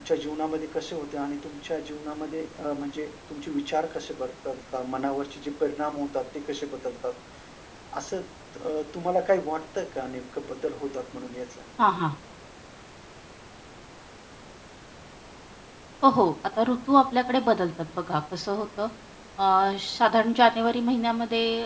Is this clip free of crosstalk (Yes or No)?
Yes